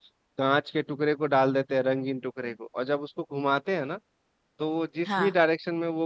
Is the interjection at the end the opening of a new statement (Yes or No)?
No